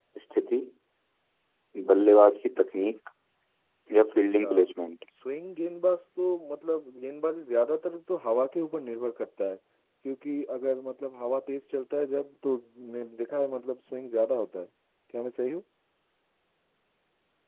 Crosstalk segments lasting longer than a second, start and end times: none

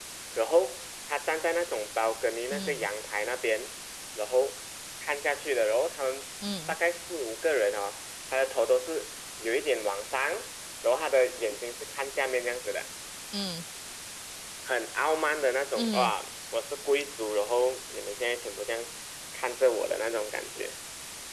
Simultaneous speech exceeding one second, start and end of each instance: none

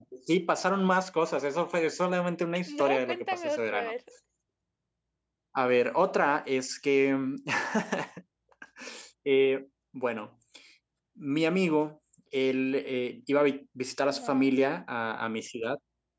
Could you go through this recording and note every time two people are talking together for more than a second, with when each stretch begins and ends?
2.7-3.9

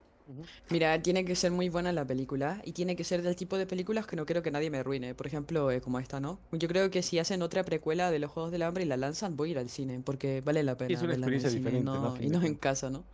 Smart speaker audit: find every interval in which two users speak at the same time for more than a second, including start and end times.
10.9-12.6

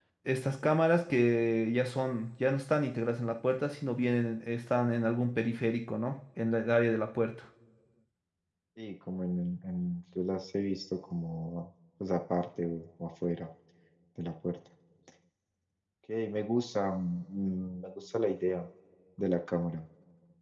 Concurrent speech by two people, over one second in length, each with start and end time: none

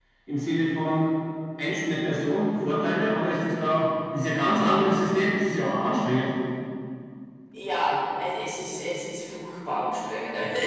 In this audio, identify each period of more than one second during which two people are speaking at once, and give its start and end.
none

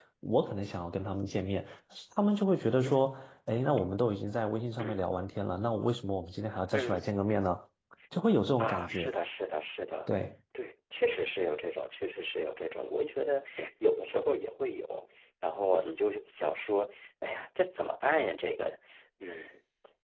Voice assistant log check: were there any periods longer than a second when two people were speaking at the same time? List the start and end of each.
none

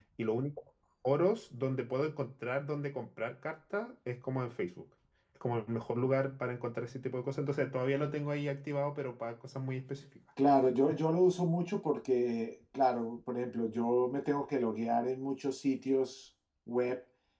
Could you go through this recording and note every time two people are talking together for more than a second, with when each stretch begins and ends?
none

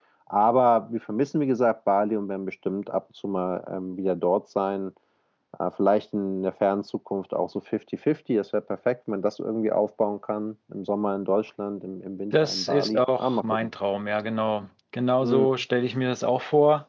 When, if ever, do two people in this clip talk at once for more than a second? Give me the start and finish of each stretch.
12.4-13.7

